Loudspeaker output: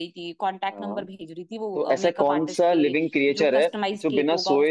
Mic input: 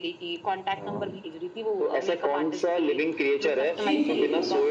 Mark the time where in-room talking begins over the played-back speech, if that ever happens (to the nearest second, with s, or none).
4 s